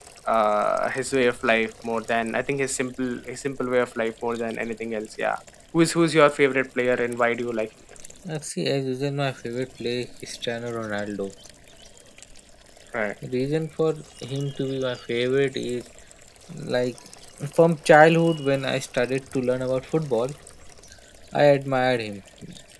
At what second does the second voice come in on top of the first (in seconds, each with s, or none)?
none